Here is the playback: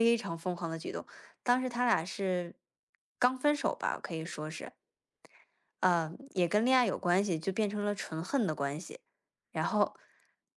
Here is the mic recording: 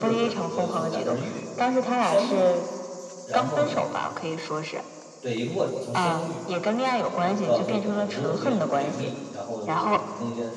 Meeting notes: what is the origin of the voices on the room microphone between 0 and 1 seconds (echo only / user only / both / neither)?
both